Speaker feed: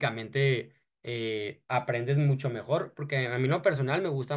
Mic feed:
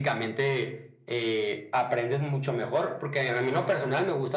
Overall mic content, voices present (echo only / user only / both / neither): echo only